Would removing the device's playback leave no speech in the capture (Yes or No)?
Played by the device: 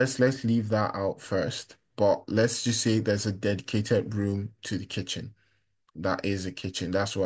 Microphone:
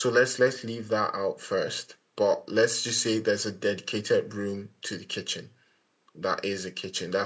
Yes